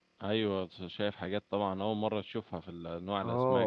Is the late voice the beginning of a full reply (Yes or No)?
Yes